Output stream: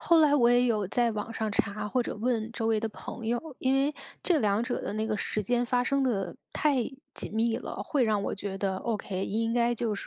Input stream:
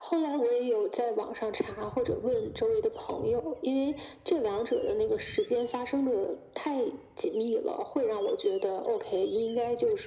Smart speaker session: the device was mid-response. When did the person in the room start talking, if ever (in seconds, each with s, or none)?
none